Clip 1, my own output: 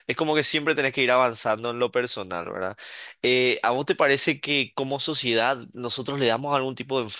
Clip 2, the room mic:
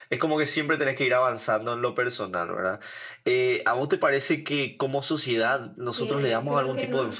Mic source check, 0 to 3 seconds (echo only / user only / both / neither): echo only